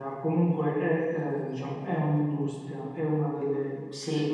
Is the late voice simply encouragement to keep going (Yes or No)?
Yes